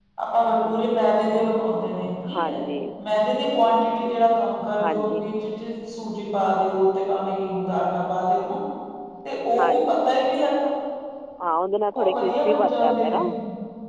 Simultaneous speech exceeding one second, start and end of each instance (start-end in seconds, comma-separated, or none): 11.9-13.2